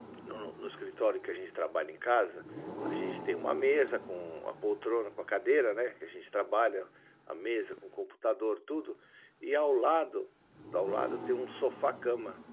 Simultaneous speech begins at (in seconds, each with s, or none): none